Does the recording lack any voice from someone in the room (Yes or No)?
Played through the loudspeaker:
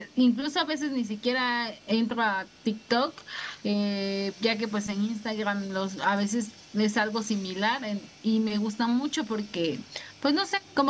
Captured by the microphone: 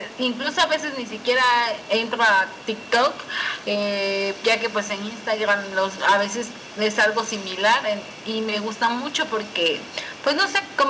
Yes